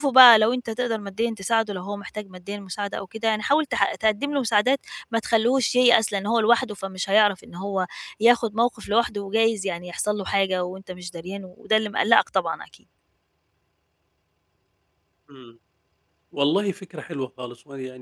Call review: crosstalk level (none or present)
none